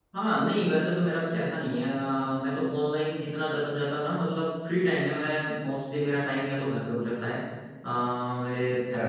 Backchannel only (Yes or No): Yes